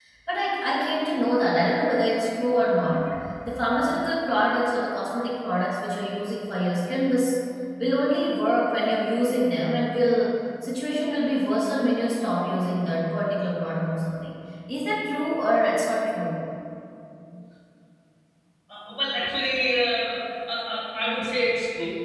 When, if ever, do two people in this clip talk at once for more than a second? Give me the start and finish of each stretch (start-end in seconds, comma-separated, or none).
none